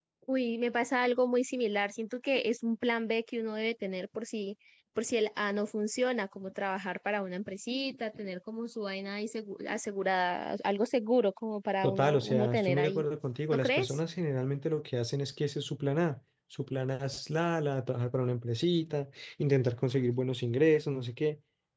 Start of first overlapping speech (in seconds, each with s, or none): 11.8 s